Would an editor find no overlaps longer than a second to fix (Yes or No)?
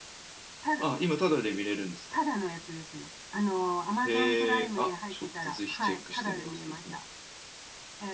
No